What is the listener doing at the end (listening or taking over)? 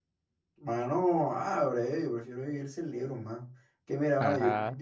listening